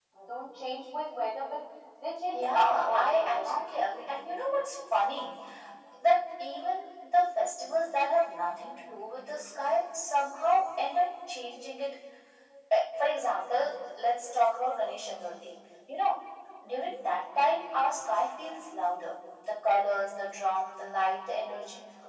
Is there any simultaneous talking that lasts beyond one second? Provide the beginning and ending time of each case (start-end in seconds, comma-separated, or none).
2.3-3.6